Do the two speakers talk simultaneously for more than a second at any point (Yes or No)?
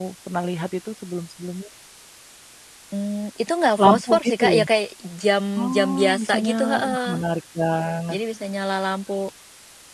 Yes